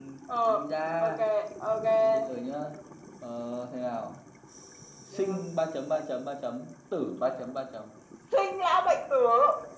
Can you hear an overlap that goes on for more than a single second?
No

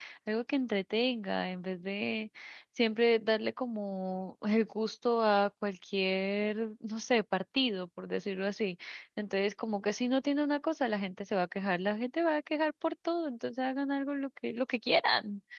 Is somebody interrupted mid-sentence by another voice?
No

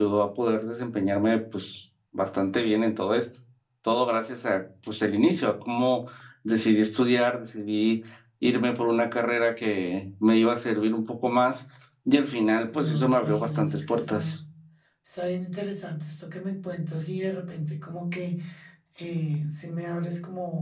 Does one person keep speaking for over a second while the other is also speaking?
Yes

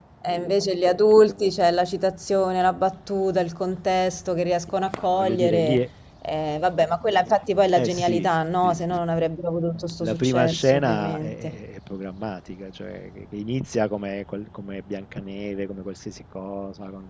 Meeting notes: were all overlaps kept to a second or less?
No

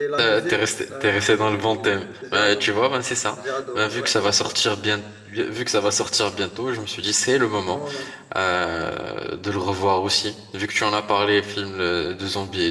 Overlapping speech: Yes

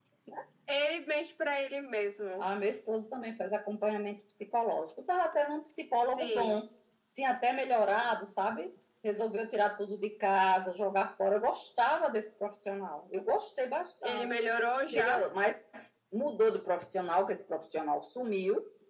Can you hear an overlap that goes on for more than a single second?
No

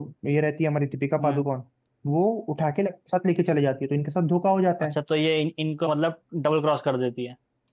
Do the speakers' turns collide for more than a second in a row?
No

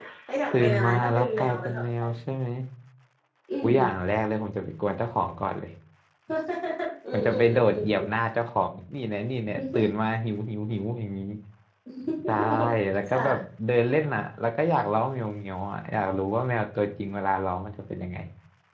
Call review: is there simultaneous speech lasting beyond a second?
Yes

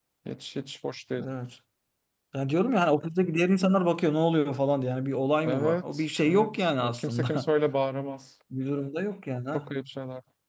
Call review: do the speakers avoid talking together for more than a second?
No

